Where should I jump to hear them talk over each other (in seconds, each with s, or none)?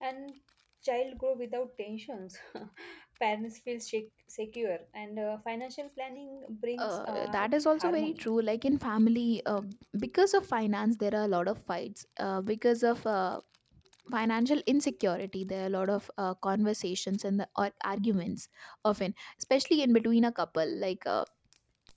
6.8 s